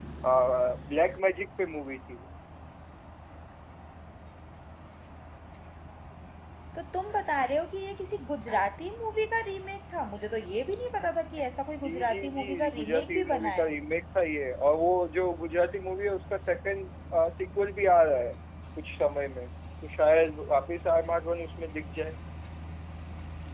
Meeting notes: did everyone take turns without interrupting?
No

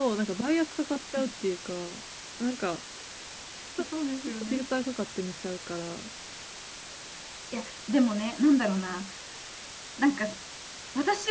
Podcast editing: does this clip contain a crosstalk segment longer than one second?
No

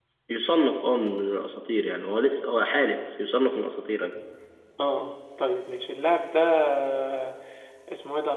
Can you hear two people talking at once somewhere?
No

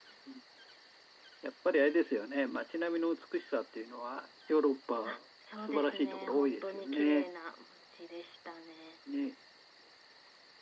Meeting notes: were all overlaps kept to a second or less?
No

